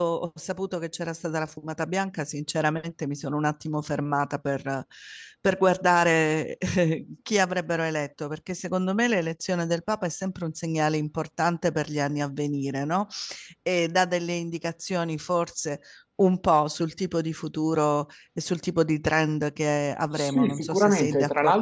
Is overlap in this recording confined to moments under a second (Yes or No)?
No